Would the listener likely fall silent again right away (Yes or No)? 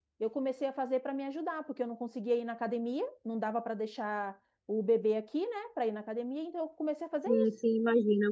No